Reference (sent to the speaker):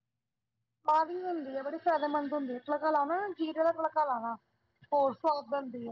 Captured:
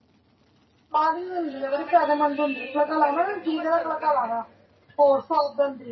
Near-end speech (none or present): present